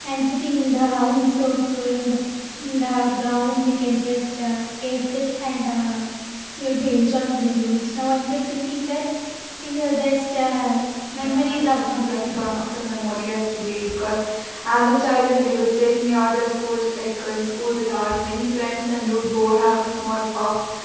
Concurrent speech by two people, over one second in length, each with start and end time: 11.1-12.4

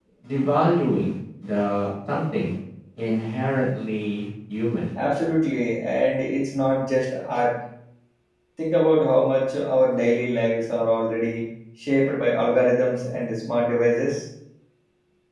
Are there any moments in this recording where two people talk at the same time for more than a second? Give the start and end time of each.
none

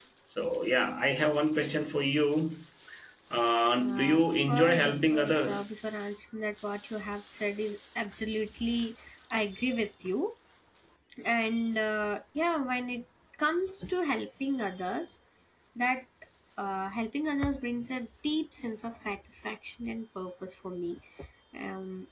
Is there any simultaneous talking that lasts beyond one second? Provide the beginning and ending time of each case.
3.8-5.6

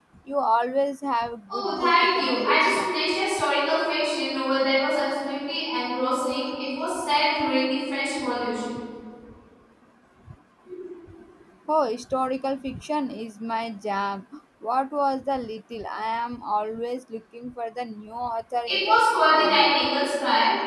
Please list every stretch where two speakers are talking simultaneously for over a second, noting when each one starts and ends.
1.5-2.9

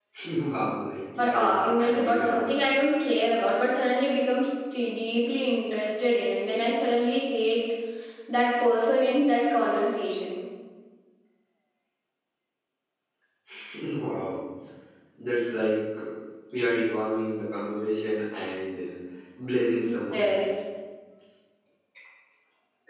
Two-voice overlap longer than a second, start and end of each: 1.2-2.5

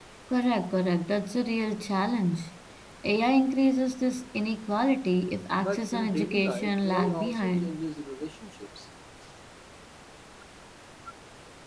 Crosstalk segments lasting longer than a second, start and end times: 5.6-7.8

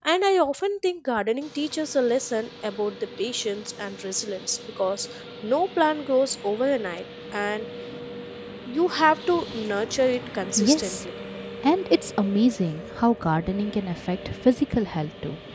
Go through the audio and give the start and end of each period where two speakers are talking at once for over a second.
none

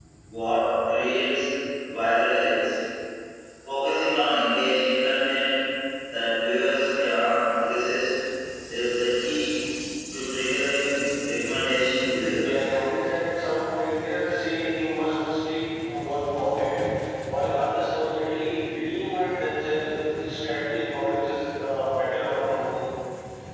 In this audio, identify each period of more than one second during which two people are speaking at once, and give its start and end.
none

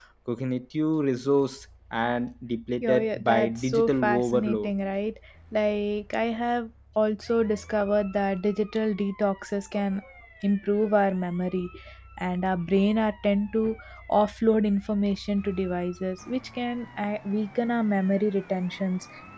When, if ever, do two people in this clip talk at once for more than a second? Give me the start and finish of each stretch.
2.8-4.7

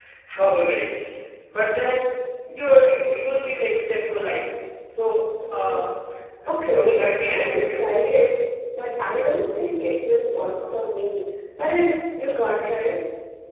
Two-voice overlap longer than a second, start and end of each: 6.5-7.8

